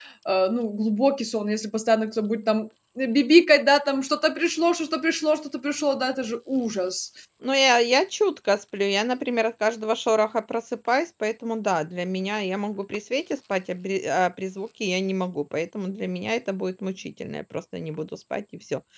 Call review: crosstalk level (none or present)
none